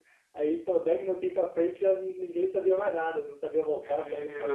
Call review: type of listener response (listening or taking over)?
taking over